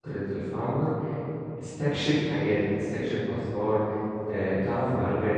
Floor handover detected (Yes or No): Yes